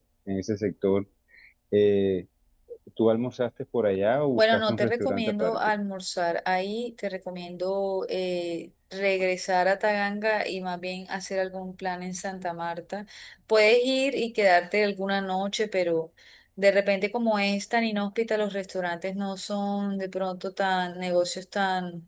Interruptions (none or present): present